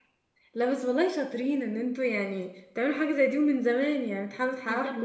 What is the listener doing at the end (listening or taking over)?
taking over